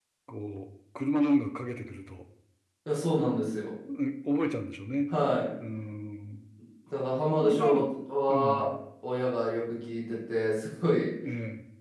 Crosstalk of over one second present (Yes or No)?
No